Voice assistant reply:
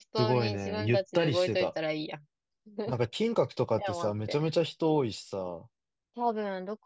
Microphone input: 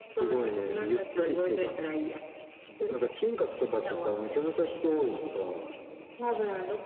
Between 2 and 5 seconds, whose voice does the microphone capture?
echo only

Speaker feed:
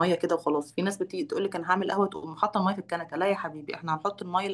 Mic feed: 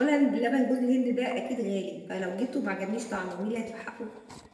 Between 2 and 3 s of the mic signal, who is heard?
user only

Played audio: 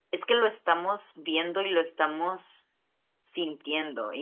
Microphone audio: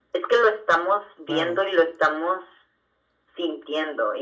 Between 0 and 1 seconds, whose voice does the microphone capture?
echo only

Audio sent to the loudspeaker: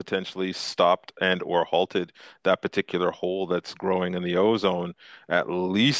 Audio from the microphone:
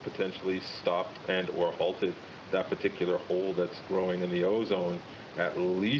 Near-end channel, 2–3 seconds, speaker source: echo only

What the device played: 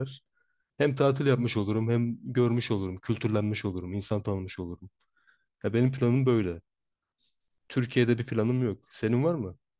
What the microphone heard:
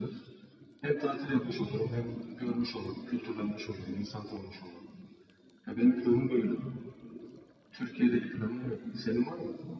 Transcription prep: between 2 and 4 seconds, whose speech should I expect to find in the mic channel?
echo only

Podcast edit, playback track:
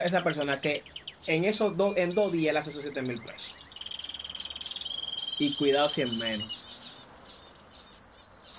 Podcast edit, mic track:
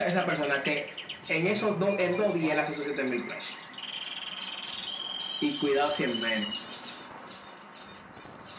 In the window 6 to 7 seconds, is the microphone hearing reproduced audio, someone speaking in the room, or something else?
echo only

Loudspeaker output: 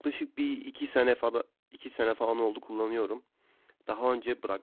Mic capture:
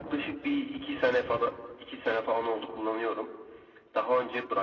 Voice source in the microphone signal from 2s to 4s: echo only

